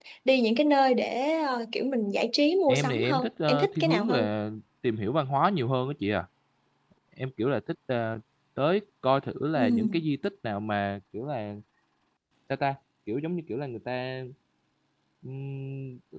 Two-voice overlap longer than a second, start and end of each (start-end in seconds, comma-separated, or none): 2.7-4.3